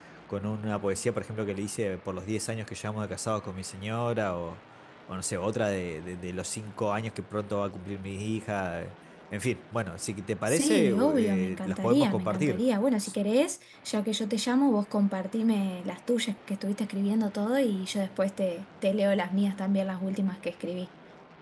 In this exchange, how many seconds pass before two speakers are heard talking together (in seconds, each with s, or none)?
10.5 s